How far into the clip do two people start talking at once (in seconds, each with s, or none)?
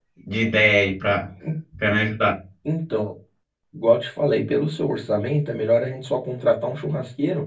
none